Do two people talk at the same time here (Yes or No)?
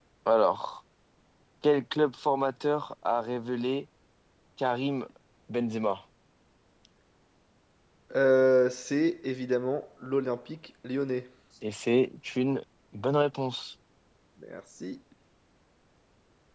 No